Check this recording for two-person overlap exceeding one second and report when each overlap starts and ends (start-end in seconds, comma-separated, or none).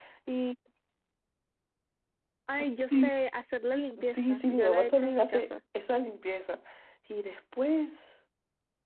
4.1-5.4